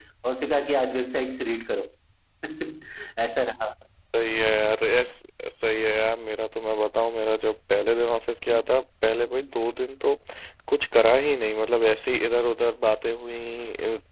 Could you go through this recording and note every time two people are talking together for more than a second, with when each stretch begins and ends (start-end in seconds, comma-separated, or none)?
none